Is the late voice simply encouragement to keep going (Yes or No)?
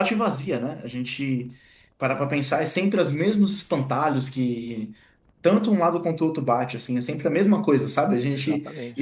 Yes